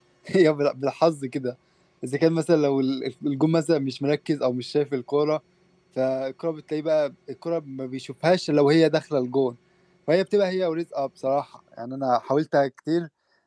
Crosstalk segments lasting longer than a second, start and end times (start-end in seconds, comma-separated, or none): none